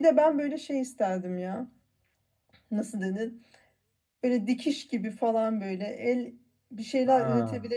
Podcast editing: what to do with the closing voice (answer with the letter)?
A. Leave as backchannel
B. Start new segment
A